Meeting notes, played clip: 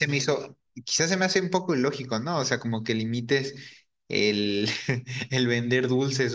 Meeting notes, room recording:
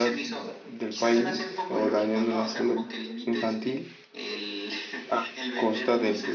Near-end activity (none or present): present